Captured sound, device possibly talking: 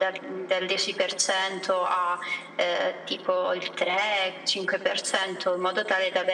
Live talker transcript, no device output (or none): none